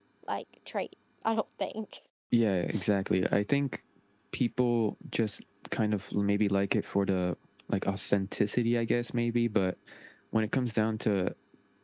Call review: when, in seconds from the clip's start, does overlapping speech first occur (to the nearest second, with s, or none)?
none